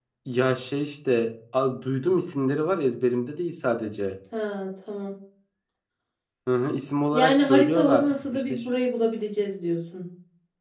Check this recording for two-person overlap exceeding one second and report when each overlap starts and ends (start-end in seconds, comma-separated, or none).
7.1-8.6